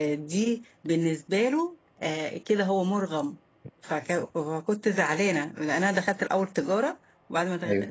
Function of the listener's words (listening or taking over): listening